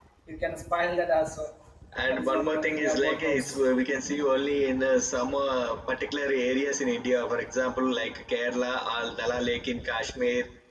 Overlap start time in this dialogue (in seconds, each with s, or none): 2.1 s